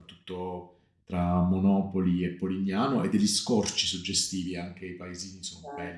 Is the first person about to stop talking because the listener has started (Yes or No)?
Yes